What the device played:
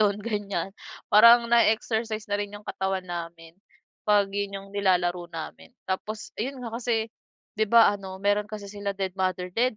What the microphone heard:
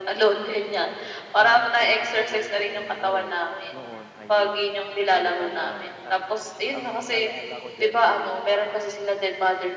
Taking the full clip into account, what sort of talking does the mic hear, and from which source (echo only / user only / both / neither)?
both